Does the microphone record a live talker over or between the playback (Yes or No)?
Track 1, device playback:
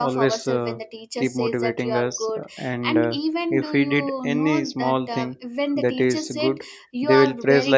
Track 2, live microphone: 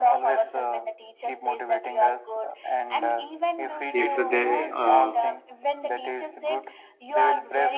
Yes